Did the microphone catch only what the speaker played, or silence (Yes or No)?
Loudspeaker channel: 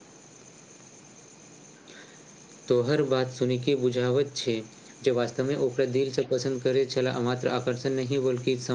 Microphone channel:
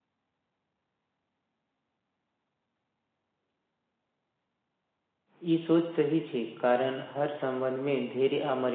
No